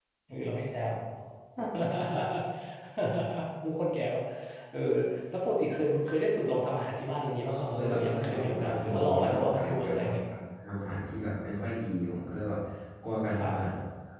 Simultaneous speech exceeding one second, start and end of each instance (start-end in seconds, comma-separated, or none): 7.5-10.2